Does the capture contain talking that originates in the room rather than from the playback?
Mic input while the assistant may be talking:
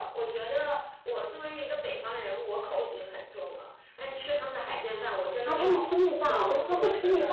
Yes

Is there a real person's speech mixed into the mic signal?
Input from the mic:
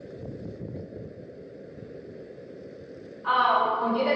Yes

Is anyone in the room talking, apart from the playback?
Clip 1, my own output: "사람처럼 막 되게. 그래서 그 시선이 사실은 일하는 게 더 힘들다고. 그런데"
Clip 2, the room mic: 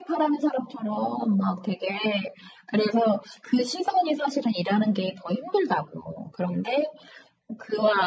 No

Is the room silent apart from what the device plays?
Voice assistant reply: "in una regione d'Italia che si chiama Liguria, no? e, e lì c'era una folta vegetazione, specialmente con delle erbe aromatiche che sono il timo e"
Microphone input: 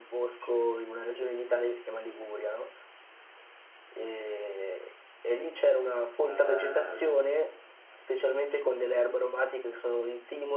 No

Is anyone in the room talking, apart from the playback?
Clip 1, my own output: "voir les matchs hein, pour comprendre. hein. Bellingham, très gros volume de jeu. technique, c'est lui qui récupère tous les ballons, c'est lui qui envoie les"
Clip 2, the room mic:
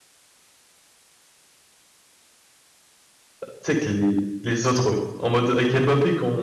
Yes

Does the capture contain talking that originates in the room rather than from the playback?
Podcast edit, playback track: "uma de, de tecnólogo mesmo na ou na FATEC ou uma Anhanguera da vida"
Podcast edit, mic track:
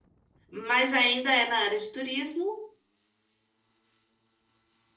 Yes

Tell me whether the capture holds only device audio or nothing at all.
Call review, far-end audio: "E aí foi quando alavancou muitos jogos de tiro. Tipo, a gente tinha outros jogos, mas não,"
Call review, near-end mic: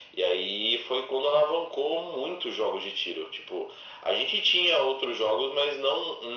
Yes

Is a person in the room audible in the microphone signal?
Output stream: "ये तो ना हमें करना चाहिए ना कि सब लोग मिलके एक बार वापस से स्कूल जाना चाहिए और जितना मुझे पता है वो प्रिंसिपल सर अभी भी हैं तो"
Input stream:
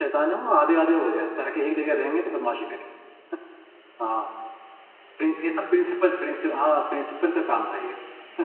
Yes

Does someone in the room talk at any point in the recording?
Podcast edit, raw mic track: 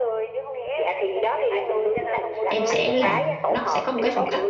Yes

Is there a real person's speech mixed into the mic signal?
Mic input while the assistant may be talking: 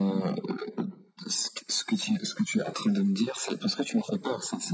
No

